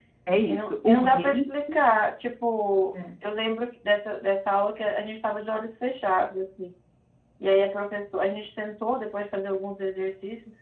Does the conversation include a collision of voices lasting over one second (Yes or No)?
Yes